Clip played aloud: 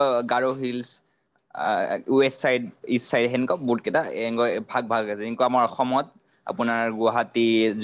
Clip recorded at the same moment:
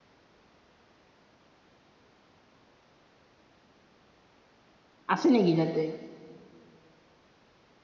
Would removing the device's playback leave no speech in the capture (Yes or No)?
No